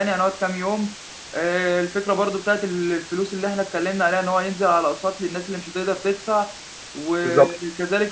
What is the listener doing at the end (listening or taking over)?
listening